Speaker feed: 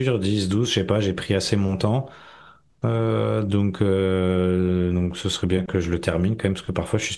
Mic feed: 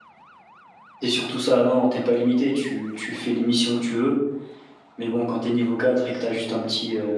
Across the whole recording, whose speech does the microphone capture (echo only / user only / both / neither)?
user only